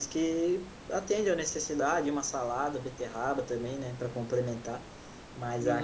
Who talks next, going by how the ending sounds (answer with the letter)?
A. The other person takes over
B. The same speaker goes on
A